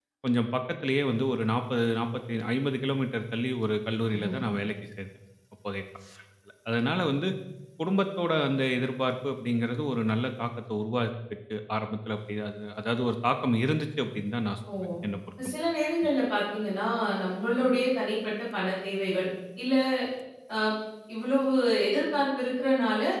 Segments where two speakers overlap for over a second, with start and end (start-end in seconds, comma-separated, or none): none